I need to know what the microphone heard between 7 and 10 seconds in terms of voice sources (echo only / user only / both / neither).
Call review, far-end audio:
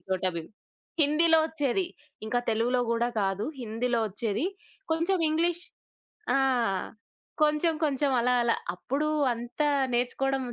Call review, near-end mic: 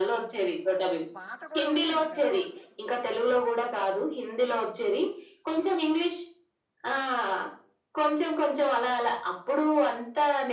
echo only